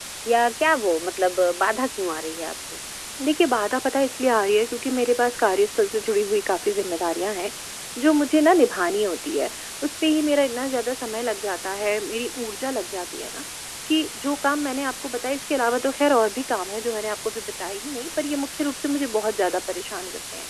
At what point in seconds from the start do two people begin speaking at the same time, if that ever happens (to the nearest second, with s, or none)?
none